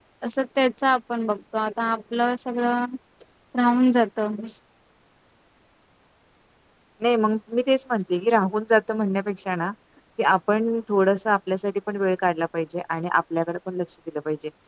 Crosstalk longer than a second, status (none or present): none